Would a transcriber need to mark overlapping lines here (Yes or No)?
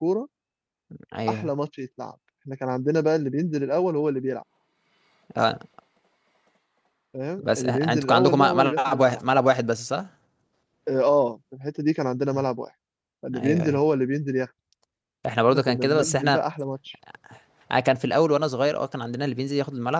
Yes